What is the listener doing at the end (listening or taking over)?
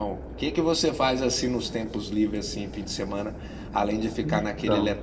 listening